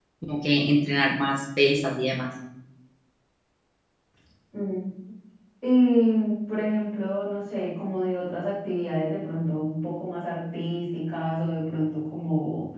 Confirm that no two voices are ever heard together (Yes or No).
Yes